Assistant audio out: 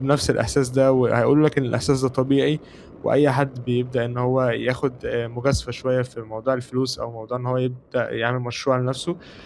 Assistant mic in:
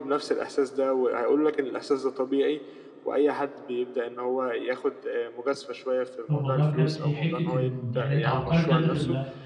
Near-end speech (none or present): present